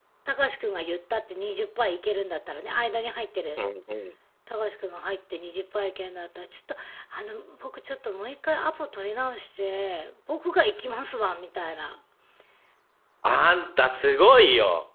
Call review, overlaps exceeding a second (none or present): none